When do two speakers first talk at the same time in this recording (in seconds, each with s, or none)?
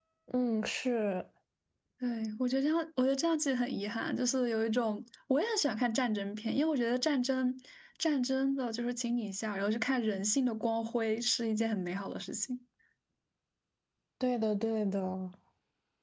none